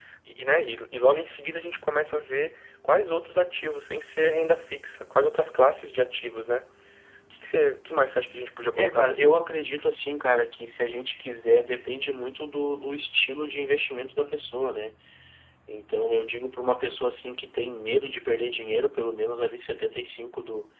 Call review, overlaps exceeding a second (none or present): none